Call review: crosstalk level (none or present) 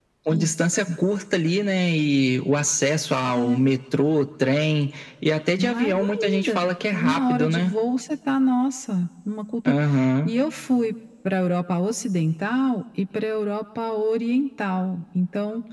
present